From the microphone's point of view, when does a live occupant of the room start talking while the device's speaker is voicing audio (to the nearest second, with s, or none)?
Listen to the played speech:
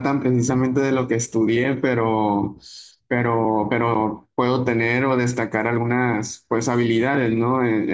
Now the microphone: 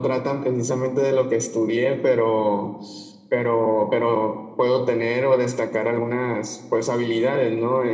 none